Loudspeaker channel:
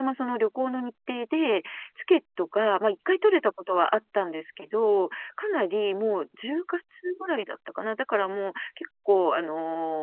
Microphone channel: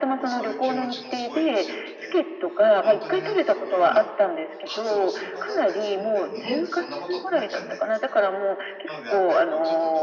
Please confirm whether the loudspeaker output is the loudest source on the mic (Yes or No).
Yes